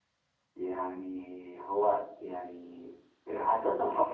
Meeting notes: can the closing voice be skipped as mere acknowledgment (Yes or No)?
No